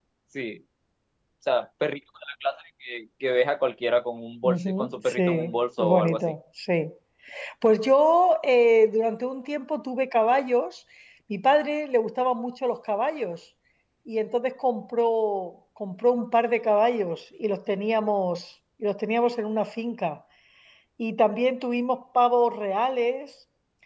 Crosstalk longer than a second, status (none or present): present